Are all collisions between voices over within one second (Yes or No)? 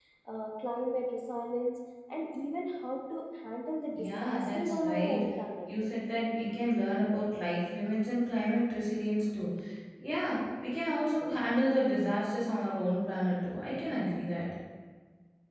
No